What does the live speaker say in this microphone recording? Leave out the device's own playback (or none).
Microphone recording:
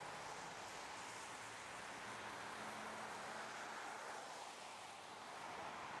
none